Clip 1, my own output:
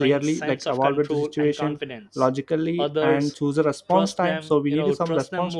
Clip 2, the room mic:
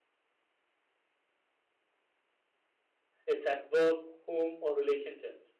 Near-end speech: present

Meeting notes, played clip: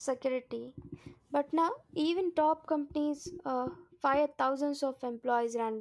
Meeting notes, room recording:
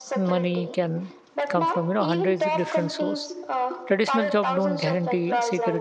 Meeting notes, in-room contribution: present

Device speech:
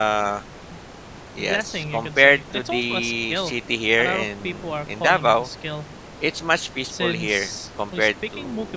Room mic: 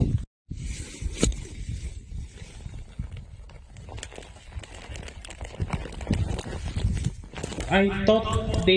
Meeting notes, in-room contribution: present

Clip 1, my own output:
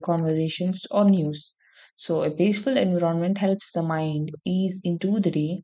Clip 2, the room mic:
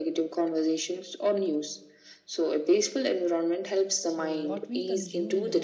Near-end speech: present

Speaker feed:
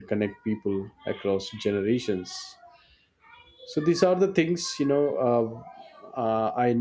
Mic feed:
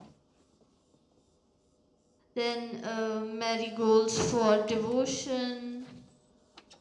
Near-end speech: present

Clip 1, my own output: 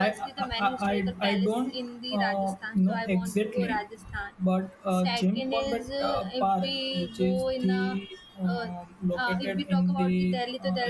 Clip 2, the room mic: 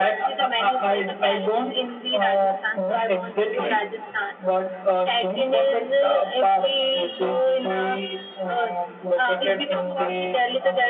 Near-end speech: none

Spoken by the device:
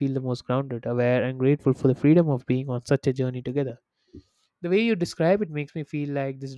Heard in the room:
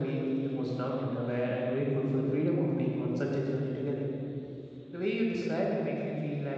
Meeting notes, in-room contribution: none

